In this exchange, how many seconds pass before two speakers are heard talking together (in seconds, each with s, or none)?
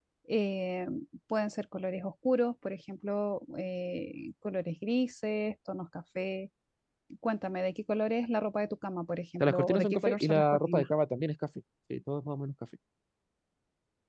9.4 s